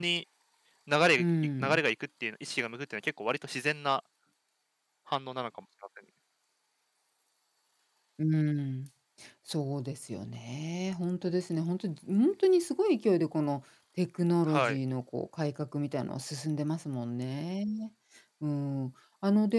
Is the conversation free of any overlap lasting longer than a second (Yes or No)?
Yes